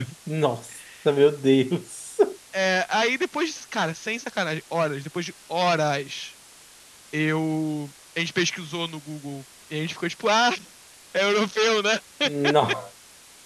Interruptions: none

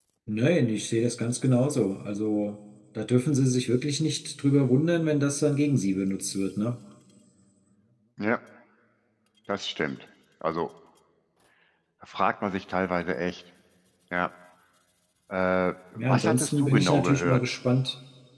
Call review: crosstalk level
present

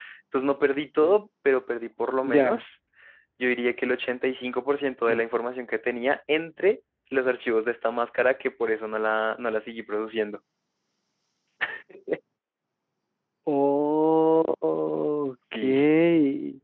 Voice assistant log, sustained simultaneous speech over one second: none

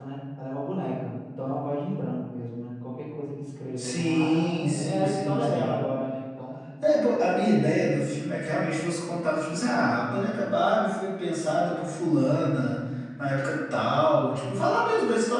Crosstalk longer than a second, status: present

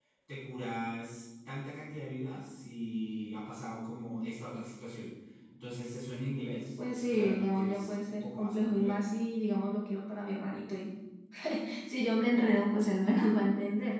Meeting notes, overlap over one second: present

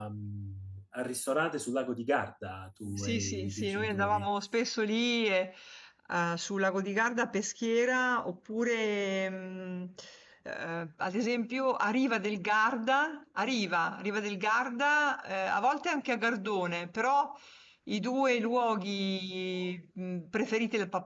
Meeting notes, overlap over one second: present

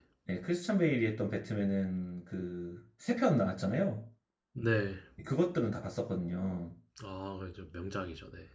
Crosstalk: none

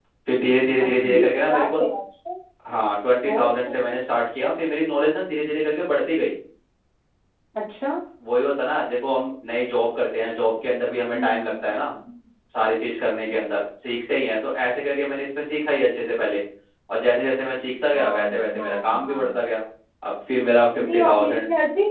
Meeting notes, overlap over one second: present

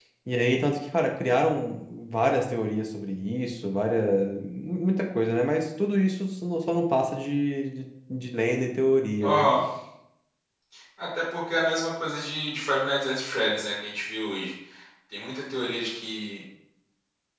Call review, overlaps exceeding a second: none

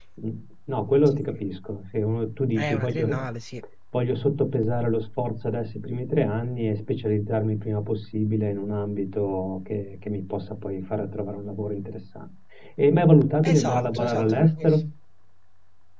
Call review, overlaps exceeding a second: present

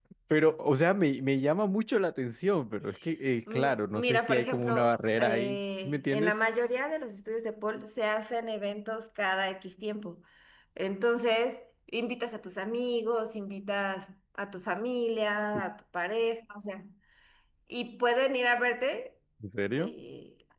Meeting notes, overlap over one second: present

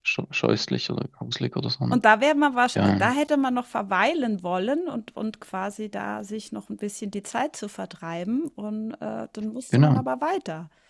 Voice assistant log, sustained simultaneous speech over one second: none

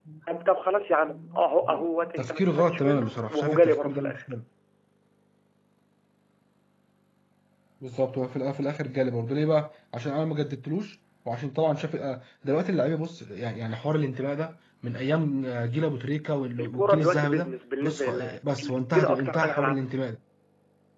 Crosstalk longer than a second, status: present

